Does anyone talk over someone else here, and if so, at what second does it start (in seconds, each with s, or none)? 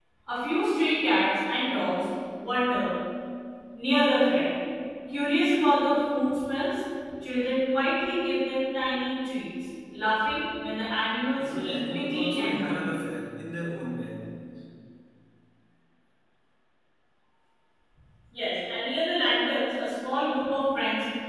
11.4 s